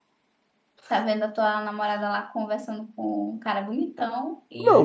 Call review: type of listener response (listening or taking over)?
taking over